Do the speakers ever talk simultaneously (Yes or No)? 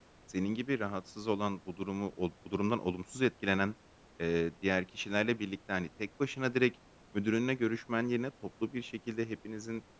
No